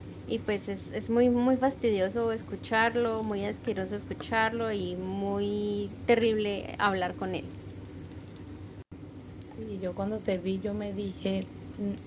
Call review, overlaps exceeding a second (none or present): none